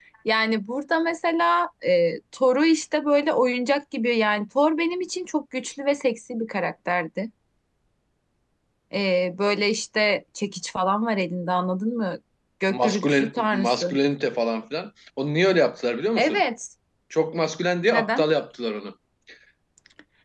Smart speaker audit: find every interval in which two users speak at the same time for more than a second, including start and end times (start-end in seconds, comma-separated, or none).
12.7-14.0